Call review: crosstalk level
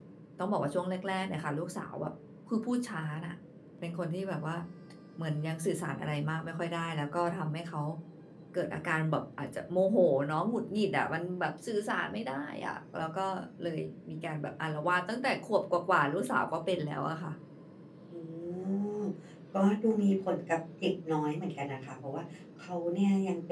none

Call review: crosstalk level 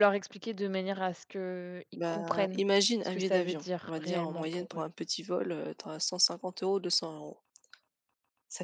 present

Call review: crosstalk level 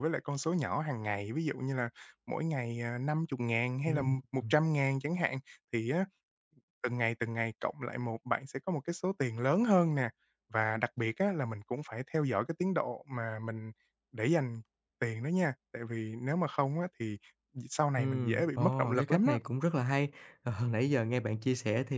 present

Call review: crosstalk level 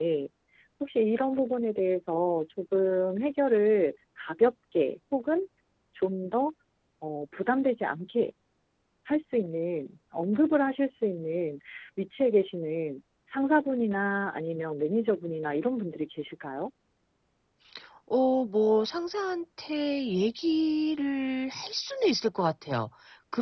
none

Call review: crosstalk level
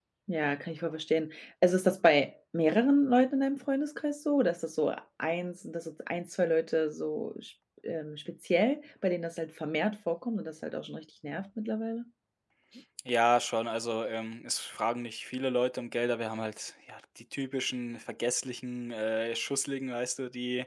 none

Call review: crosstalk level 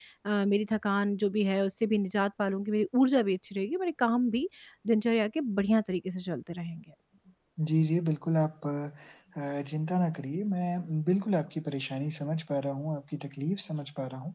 none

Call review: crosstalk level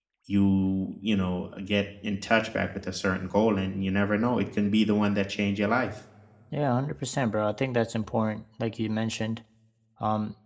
none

